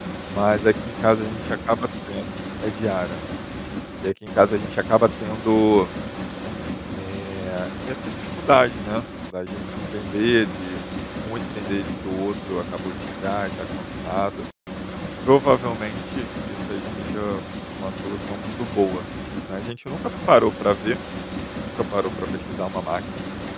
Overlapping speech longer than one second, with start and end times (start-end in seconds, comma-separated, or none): none